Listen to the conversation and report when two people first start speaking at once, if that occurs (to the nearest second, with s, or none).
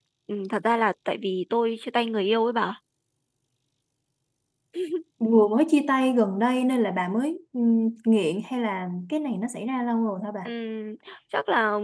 none